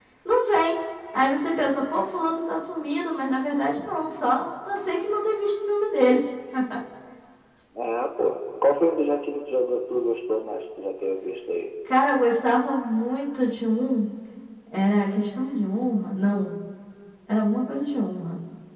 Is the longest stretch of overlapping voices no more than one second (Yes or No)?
Yes